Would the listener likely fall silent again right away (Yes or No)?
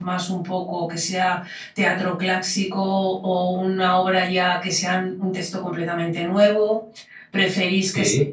Yes